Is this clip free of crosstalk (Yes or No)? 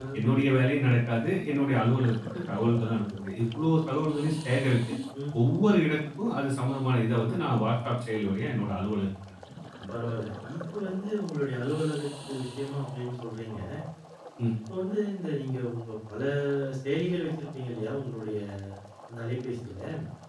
Yes